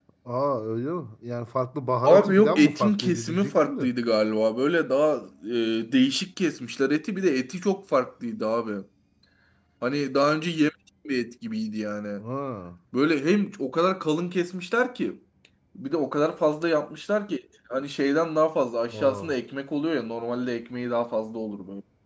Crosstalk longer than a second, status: present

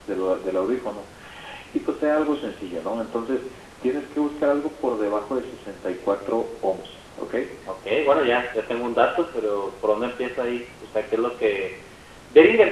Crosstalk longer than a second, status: none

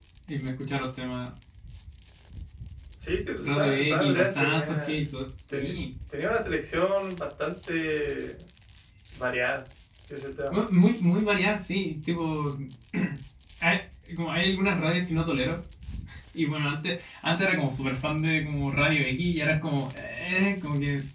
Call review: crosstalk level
present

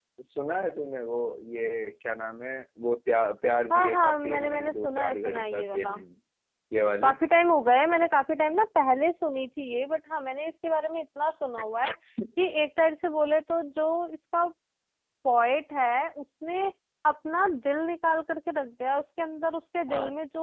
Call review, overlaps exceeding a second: present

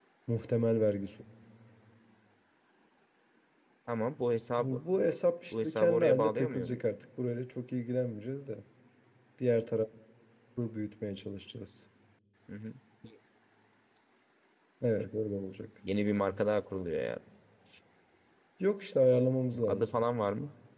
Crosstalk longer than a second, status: present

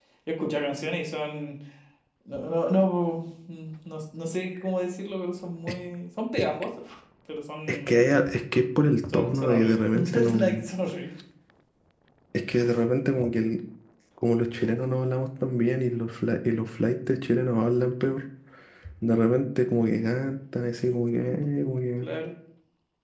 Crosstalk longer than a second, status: present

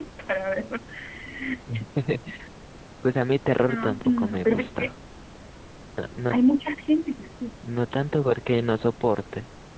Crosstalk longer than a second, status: present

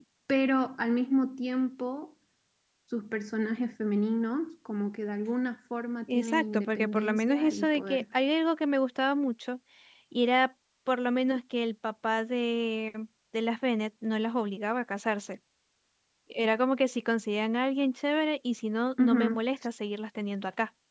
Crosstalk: present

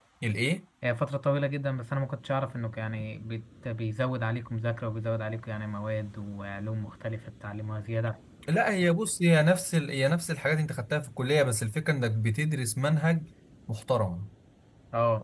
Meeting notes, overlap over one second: none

